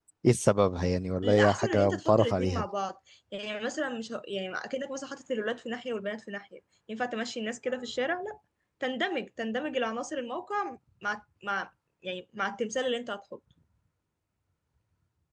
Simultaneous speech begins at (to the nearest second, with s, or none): 1 s